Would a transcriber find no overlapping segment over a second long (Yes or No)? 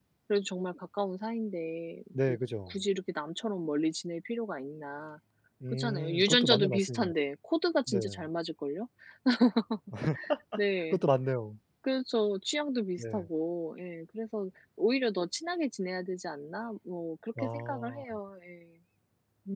No